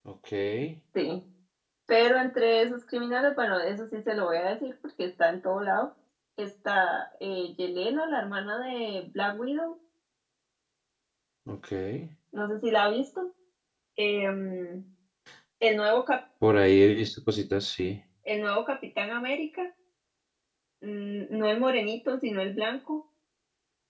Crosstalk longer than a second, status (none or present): none